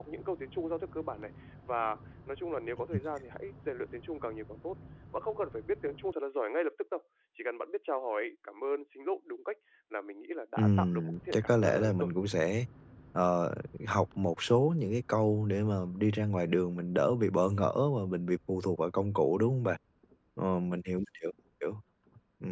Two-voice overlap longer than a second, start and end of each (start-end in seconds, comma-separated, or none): 10.6-12.1